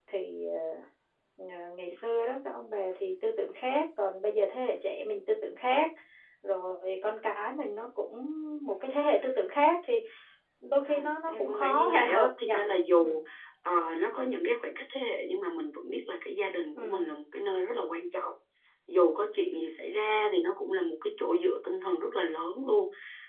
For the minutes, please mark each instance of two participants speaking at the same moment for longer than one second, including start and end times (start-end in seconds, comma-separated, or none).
11.3-12.5